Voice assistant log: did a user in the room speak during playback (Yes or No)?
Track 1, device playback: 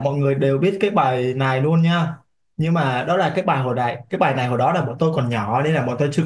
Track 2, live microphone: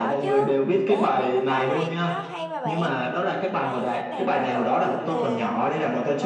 Yes